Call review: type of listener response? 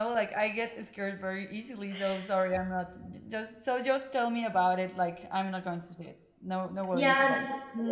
taking over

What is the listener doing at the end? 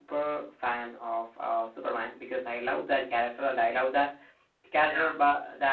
listening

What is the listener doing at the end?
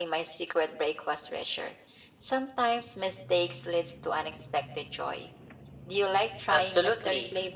taking over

